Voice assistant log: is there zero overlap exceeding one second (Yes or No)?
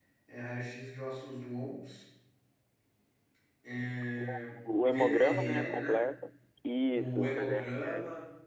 No